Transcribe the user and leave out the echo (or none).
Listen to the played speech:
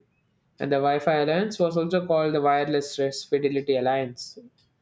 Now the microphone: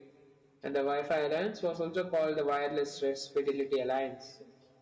none